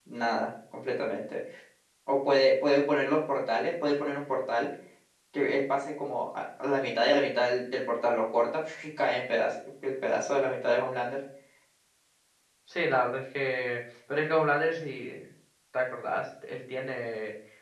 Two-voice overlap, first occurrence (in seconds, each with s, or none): none